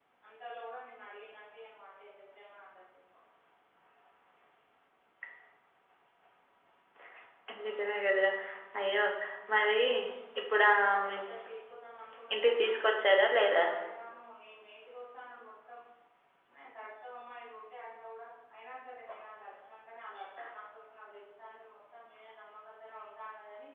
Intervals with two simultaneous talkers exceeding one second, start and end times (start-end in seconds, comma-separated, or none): 12.3-13.6